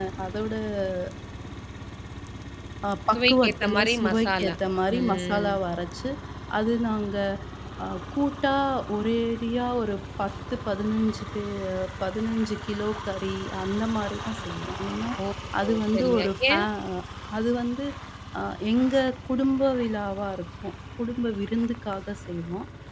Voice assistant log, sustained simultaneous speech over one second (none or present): present